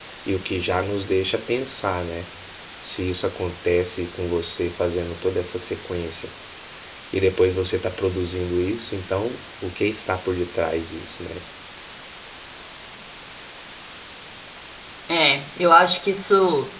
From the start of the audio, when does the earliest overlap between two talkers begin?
none

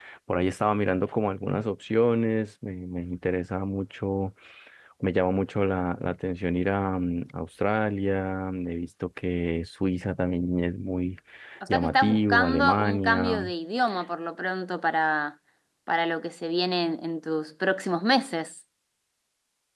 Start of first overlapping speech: 12 s

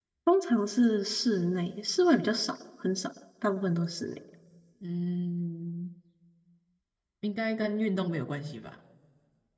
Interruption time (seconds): none

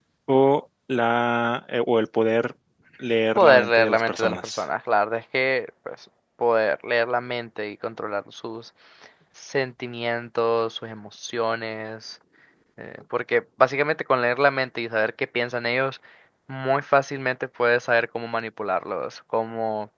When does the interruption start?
3 s

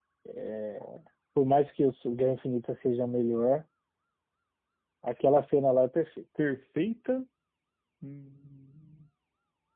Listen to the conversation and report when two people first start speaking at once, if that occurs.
none

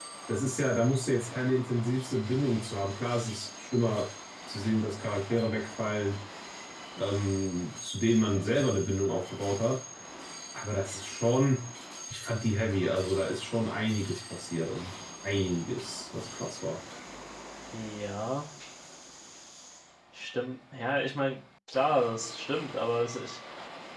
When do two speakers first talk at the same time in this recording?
none

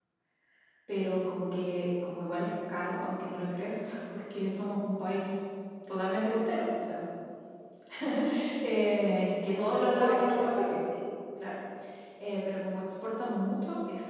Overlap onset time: 9 s

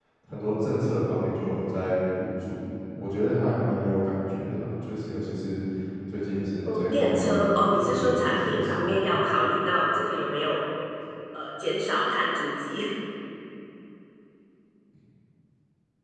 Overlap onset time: 7 s

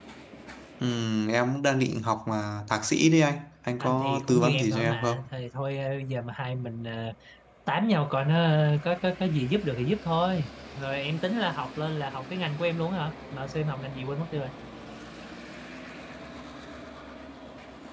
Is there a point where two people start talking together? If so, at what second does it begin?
4 s

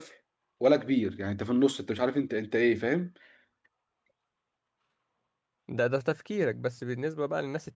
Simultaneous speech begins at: none

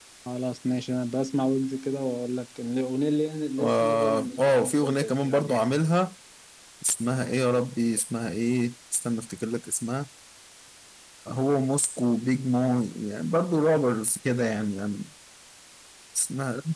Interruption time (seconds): 4 s

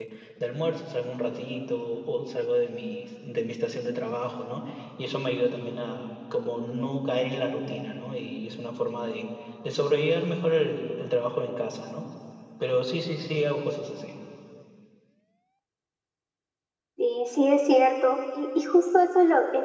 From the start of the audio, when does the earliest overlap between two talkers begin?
none

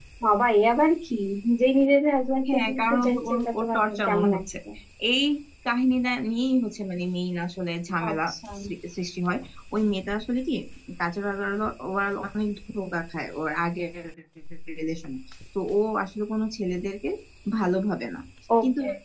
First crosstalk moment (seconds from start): 2 s

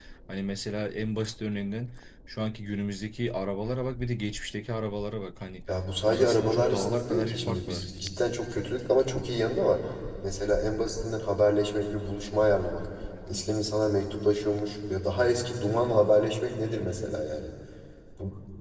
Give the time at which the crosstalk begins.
6 s

